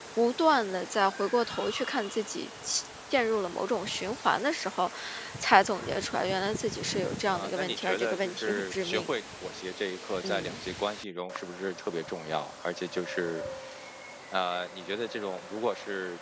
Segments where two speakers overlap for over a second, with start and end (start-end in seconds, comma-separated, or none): 7.3-9.1